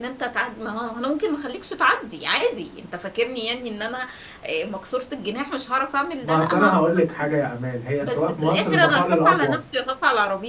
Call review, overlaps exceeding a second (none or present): present